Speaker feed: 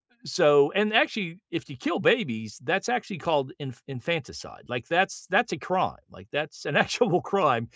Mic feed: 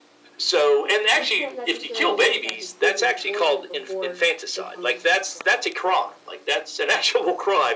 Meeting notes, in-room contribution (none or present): present